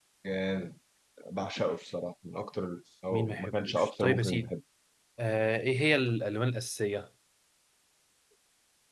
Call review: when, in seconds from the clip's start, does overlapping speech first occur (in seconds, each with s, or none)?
3.1 s